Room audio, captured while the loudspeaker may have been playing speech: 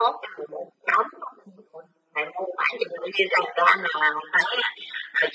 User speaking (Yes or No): No